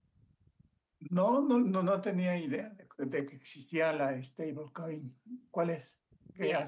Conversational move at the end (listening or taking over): taking over